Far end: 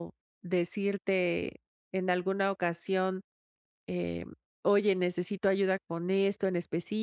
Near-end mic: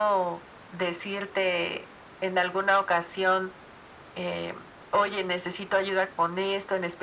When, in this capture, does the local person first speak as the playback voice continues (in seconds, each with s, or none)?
none